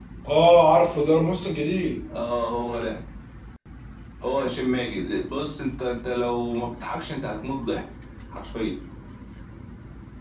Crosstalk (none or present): none